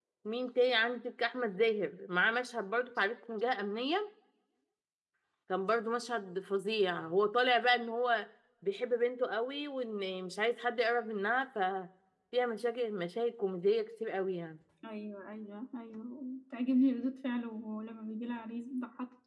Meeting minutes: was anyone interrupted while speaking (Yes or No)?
No